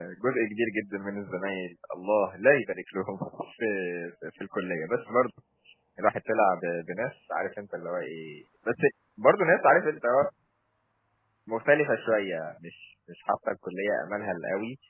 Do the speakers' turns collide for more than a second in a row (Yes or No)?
No